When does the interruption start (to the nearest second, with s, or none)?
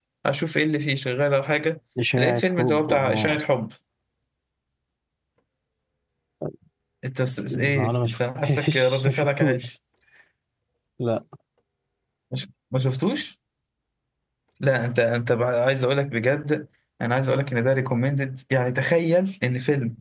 2 s